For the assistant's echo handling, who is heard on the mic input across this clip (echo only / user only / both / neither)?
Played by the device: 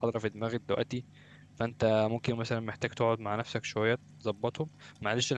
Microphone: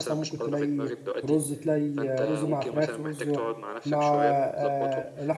both